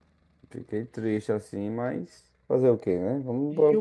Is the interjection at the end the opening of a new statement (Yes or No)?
Yes